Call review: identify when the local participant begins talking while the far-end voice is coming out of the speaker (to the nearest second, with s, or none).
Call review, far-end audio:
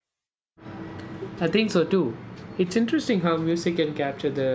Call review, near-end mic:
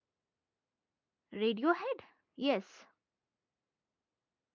1 s